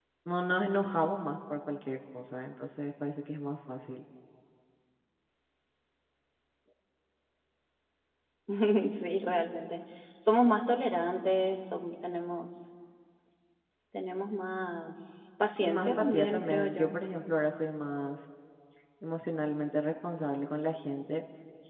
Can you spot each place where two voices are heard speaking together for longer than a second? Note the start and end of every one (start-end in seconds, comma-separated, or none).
15.6-16.9